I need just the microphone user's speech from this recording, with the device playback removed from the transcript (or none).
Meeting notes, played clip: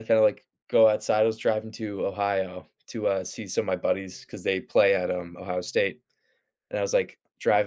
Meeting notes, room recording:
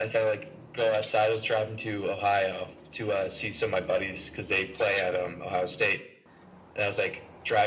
none